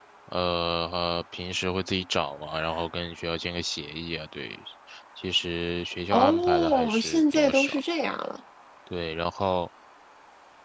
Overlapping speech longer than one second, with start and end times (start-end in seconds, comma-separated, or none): 6.1-7.8